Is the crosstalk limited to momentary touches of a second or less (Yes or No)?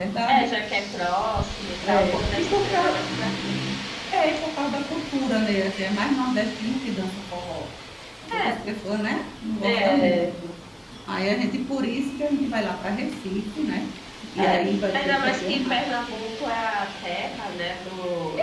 No